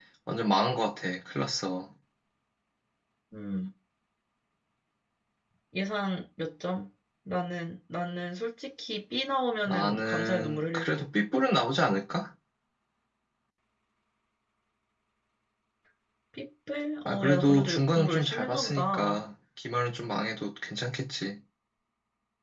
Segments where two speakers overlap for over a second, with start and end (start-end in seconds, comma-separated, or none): 9.7-11.1, 17.1-19.2